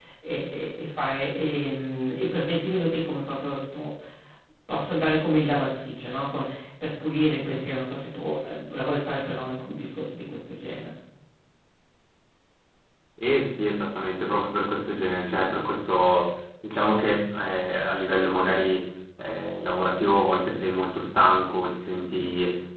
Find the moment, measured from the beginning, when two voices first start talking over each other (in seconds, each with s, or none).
none